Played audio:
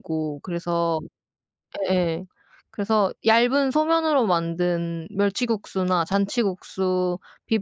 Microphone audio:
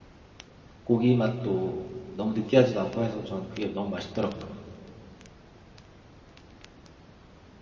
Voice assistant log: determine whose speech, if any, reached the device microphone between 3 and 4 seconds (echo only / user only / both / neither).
user only